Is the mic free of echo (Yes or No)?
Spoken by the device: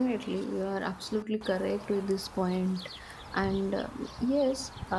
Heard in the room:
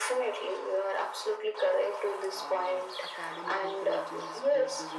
No